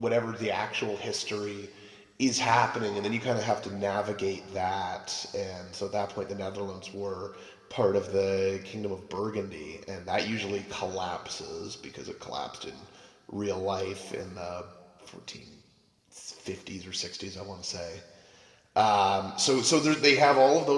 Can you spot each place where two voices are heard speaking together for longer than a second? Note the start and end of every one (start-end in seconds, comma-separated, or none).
none